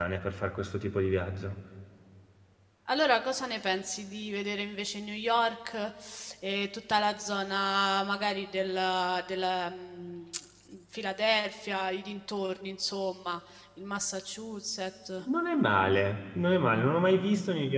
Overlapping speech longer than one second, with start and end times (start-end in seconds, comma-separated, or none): none